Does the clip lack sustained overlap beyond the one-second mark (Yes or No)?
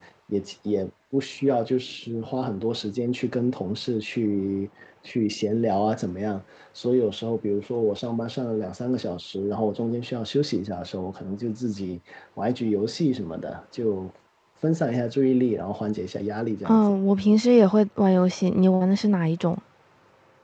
Yes